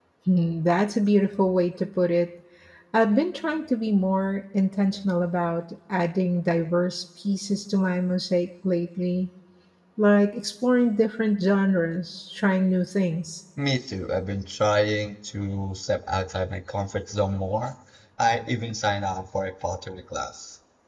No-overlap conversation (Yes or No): Yes